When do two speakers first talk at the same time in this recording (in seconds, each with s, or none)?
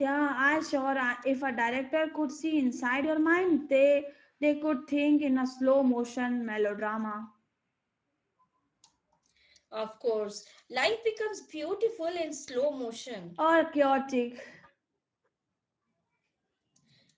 none